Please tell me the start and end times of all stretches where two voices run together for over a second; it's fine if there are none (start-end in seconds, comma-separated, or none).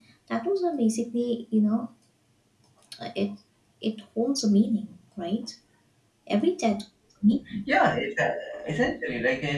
none